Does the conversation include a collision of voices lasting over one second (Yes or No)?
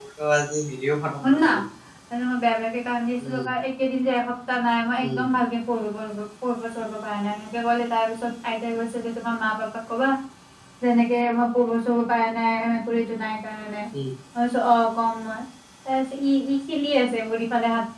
No